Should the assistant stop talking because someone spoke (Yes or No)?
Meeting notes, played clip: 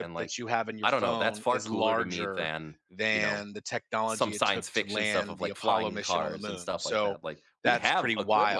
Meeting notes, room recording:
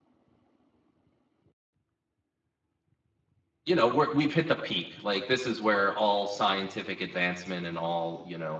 Yes